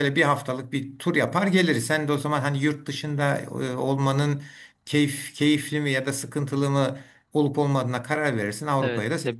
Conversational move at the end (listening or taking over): taking over